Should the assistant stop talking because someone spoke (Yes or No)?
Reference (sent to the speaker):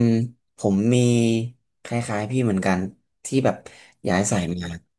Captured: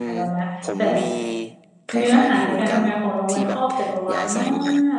Yes